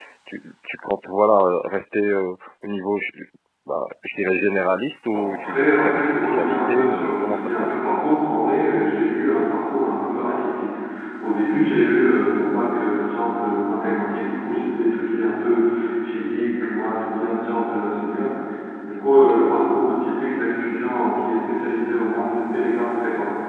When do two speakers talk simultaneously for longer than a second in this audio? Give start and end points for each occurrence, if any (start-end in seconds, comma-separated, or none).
5.1-7.7